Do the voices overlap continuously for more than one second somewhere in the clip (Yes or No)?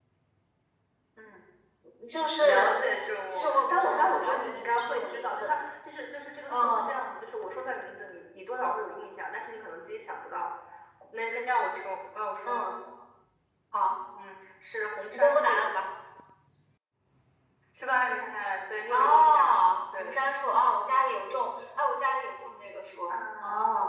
Yes